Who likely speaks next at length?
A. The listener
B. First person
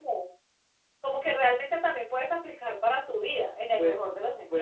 A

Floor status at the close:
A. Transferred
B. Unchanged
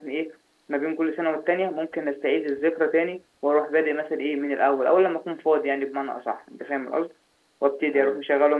B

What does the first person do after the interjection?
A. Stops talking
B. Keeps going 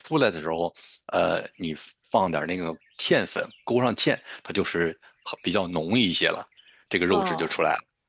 A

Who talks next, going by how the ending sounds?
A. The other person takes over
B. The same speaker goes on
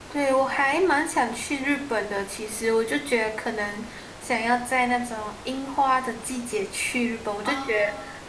B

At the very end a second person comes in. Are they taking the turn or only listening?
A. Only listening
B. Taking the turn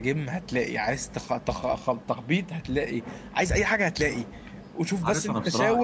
B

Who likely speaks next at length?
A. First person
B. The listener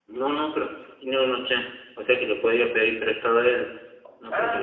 B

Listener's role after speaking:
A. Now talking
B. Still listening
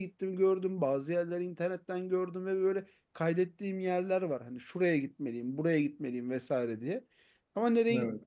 B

